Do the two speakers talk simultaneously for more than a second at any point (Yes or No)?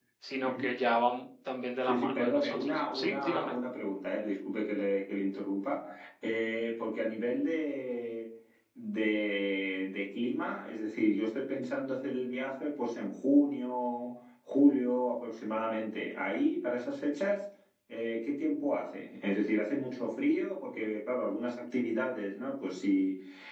Yes